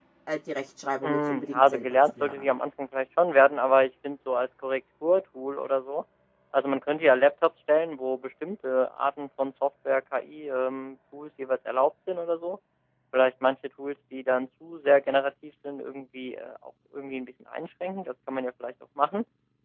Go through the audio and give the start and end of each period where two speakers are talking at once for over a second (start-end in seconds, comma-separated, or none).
1.0-2.6